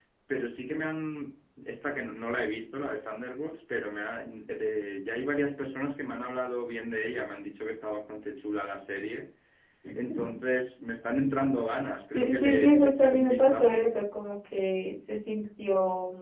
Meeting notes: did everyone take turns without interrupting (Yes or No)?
No